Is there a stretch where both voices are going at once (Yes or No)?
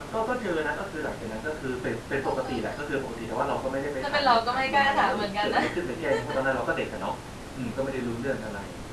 Yes